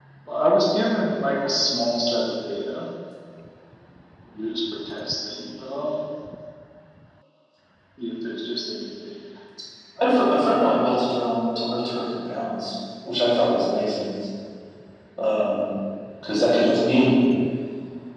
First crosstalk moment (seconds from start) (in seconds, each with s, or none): none